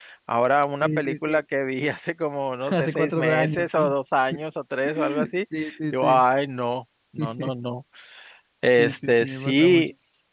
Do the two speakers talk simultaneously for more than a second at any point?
Yes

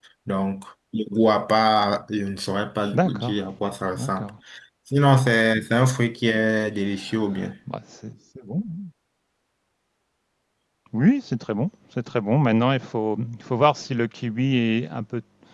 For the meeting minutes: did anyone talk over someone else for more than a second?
No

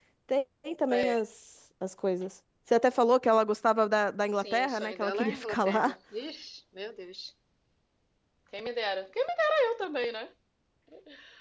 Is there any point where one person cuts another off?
Yes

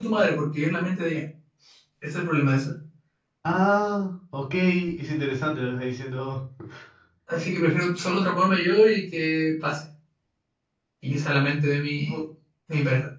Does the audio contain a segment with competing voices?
No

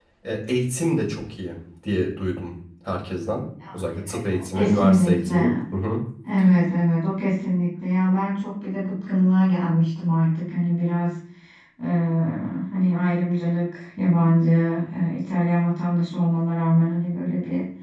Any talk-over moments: Yes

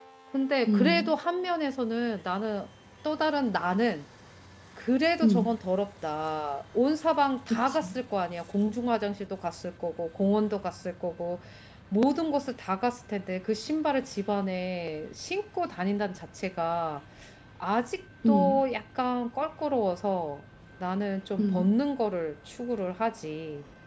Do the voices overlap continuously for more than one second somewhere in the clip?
No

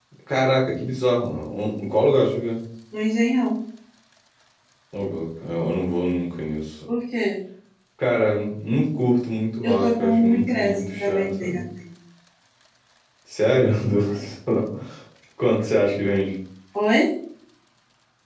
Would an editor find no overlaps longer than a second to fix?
No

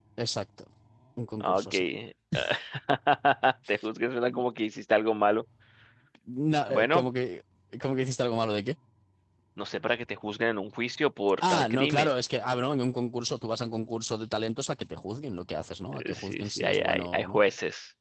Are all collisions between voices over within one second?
No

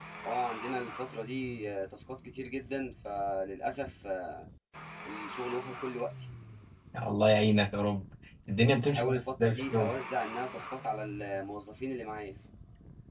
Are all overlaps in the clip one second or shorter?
No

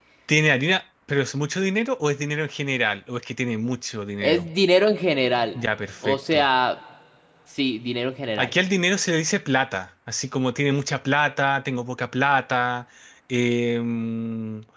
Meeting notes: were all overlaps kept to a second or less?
Yes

